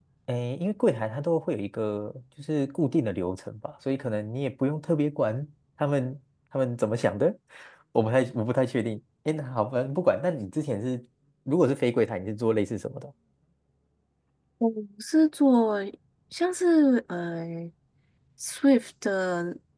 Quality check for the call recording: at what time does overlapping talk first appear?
none

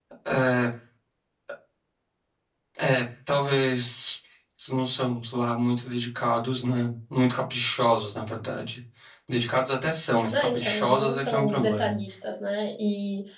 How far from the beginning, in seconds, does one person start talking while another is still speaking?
10.3 s

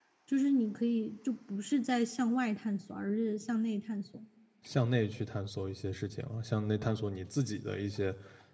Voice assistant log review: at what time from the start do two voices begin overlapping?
none

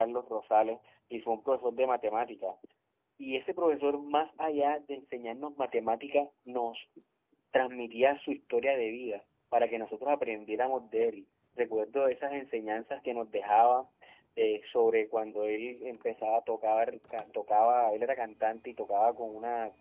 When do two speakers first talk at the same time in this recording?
none

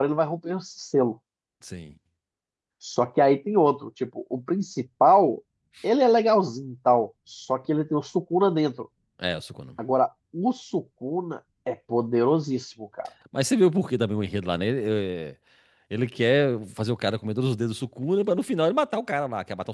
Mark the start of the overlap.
none

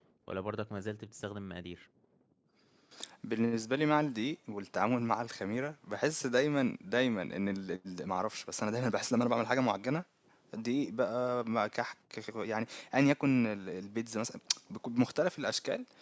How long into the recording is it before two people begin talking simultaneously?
none

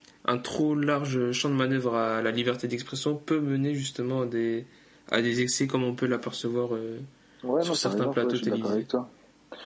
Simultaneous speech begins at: 7.6 s

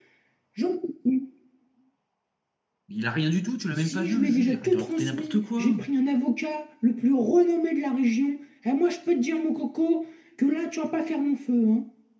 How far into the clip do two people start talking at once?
3.7 s

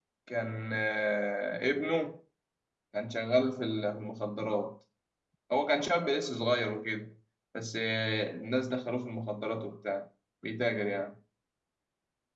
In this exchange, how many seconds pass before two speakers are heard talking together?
none

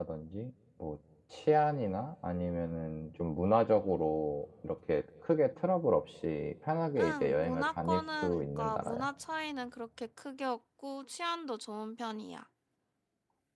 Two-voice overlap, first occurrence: 7.0 s

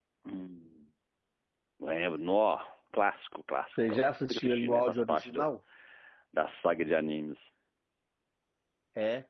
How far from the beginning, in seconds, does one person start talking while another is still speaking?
3.8 s

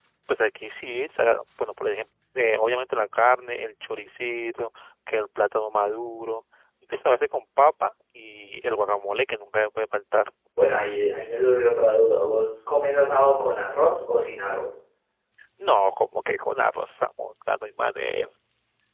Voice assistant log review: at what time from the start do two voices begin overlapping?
none

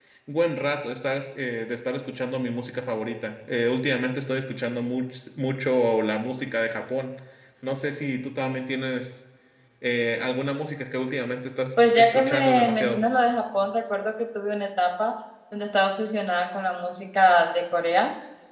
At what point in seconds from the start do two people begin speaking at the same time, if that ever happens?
11.8 s

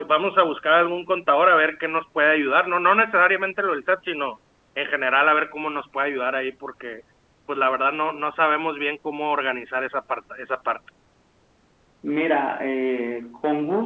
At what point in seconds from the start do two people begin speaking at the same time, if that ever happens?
none

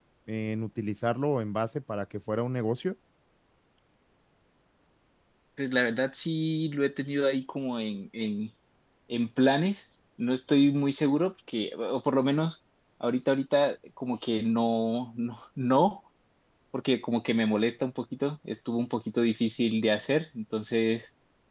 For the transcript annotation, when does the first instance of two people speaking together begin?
none

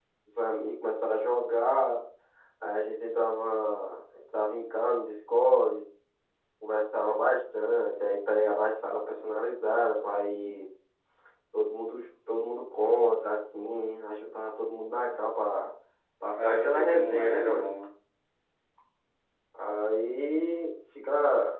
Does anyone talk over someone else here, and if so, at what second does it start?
16.4 s

